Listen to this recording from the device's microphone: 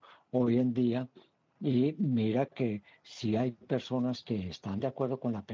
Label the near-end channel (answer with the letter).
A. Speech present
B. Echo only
A